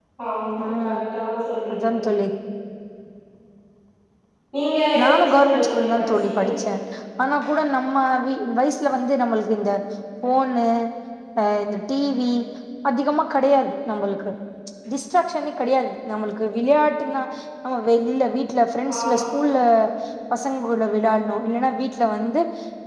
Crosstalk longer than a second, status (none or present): present